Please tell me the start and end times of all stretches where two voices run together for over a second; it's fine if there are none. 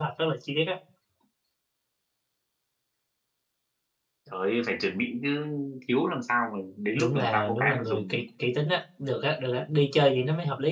7.0-8.2

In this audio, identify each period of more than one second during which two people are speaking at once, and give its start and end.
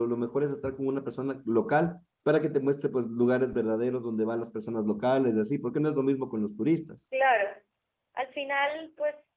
none

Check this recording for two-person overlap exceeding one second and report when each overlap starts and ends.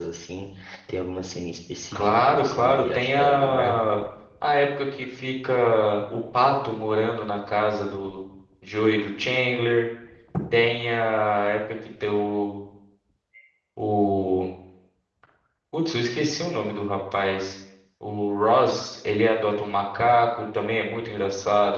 1.9-3.8

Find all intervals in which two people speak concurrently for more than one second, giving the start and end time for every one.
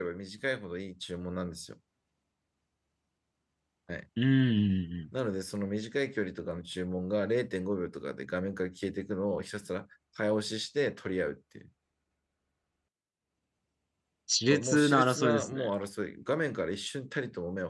14.5-15.7

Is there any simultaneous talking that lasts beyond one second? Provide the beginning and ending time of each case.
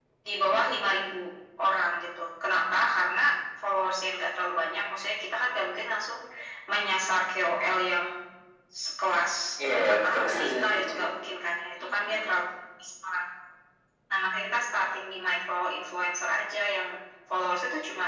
9.7-11.0

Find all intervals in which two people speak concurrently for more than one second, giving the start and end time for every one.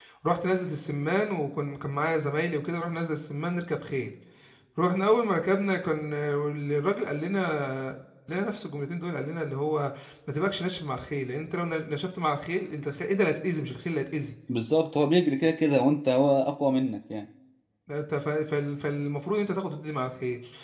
none

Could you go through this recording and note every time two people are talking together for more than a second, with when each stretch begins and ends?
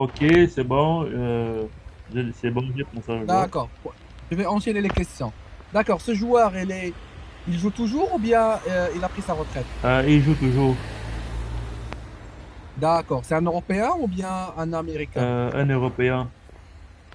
none

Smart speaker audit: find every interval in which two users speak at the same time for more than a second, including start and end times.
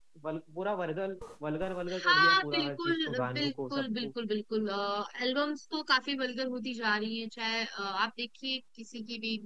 1.9-4.1

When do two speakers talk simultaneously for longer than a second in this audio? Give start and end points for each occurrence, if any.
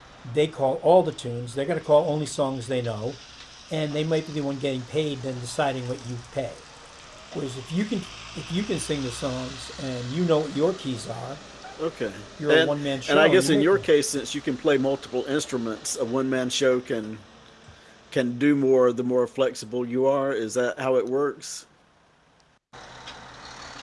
12.5-13.9

